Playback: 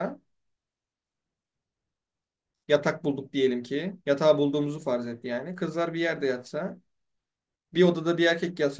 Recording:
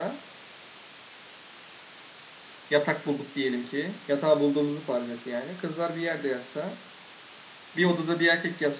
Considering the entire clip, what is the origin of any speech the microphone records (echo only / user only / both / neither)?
echo only